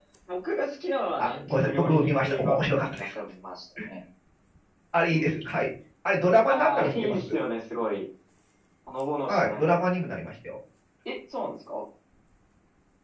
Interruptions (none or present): present